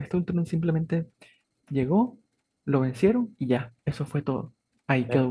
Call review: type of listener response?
taking over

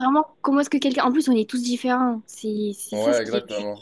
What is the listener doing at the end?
taking over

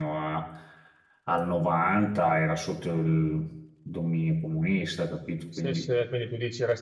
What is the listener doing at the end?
taking over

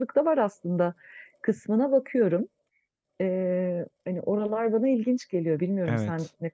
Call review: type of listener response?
taking over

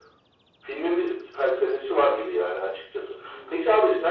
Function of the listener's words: listening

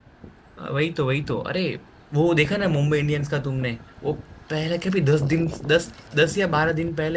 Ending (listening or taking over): listening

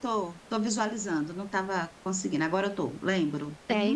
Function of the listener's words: taking over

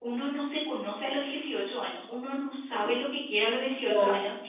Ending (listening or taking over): listening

